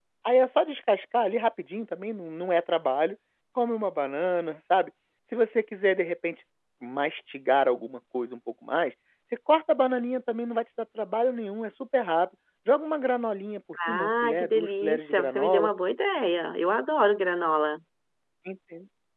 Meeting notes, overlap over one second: present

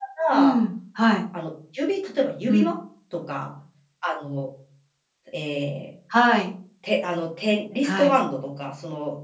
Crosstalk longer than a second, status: none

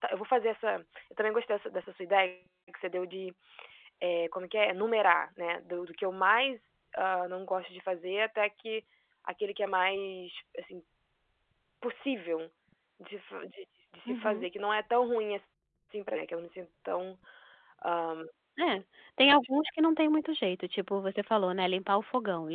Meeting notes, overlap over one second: none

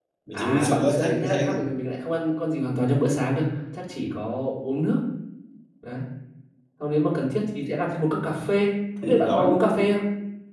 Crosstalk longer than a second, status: present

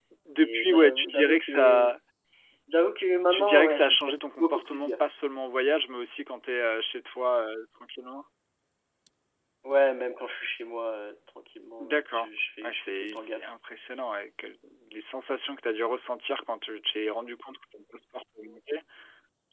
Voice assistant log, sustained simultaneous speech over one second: present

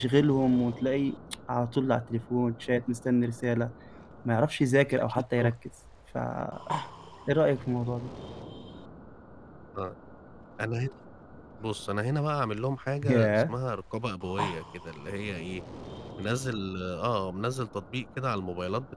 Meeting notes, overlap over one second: none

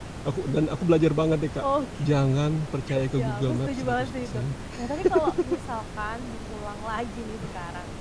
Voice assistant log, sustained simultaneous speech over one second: present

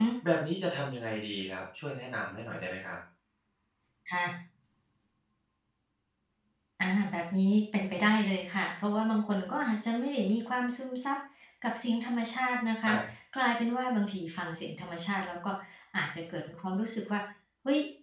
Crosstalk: none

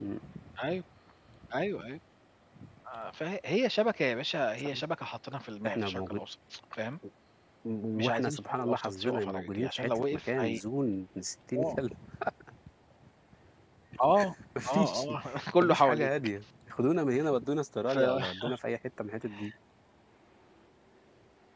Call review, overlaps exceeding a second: present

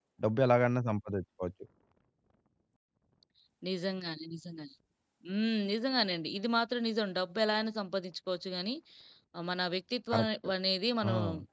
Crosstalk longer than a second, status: none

